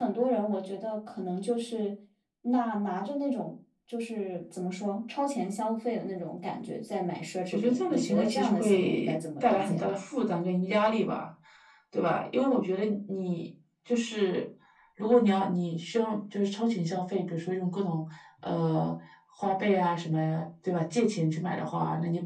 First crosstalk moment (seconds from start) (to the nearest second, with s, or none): 8 s